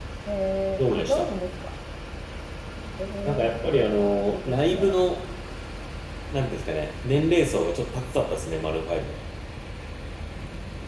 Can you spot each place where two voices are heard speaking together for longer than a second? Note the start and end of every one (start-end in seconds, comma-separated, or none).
3.3-4.9